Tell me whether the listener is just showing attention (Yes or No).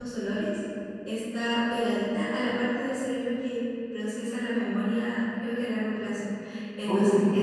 Yes